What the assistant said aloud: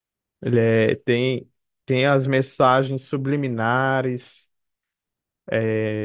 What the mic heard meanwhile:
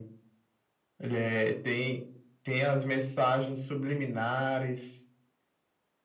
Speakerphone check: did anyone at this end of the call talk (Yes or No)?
No